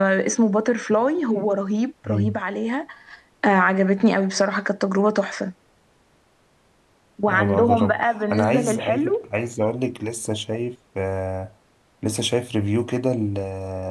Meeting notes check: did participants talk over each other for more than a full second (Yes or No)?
Yes